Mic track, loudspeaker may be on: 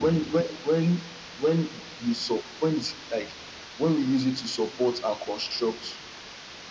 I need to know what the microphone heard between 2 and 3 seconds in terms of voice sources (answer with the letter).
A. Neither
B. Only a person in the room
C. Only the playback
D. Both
C